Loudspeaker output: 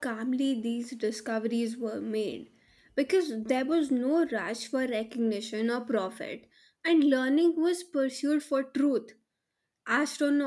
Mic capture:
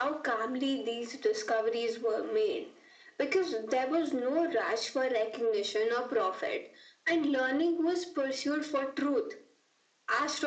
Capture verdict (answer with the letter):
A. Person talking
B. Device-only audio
B